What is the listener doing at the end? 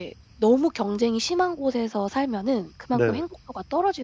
listening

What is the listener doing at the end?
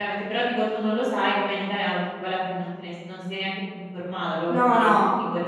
taking over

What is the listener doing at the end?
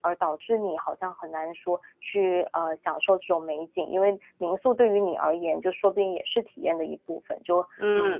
taking over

